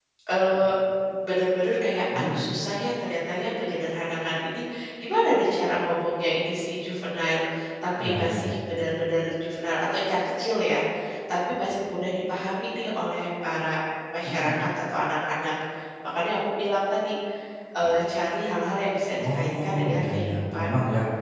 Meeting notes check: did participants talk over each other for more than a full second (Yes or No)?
Yes